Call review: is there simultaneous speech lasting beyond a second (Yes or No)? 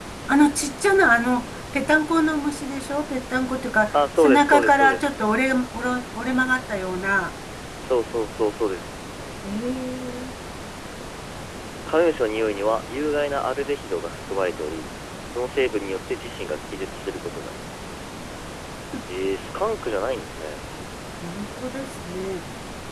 Yes